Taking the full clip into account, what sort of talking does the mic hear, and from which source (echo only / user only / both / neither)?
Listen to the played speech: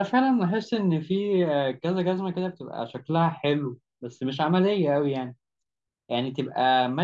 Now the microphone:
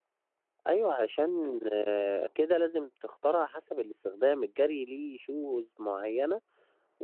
user only